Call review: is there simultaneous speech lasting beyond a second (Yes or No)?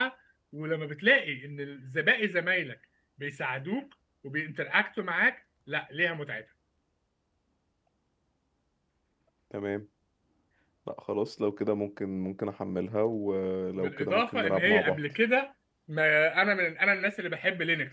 Yes